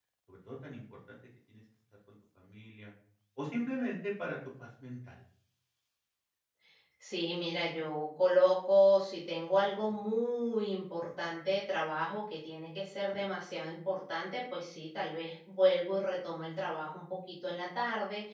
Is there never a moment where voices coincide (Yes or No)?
Yes